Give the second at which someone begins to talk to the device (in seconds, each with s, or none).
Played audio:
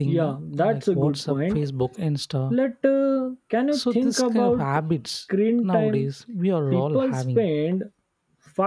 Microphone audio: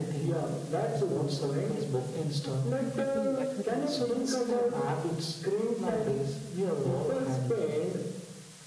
2.4 s